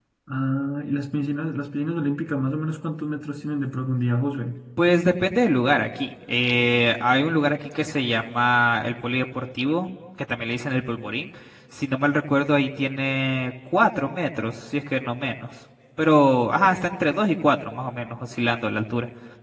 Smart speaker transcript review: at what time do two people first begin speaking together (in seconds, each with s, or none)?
none